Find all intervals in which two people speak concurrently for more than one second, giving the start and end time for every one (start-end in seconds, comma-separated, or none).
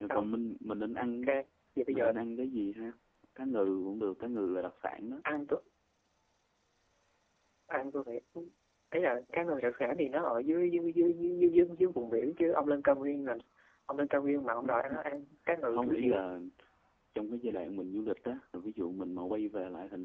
none